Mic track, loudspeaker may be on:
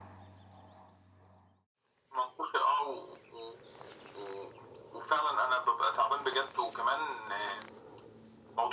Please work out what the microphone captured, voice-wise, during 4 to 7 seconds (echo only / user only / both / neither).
echo only